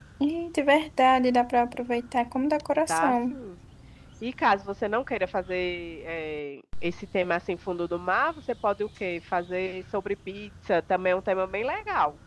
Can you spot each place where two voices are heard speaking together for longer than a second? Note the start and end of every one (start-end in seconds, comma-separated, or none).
none